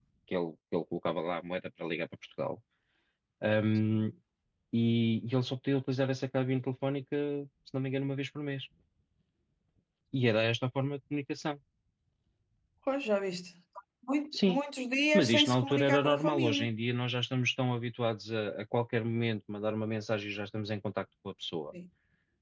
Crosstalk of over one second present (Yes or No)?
Yes